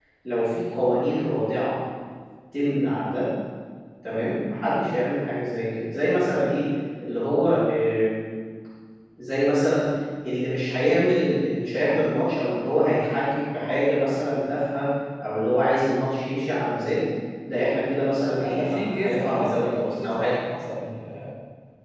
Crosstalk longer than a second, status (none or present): present